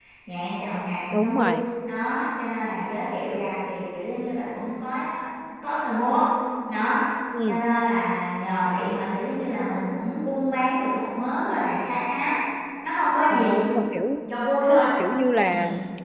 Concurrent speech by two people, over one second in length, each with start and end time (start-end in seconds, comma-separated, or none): none